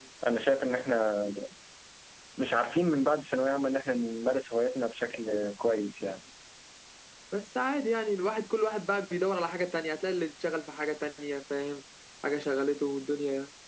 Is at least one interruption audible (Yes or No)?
No